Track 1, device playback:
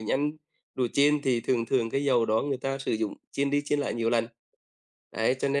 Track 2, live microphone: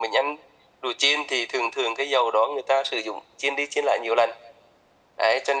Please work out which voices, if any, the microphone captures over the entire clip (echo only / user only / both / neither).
echo only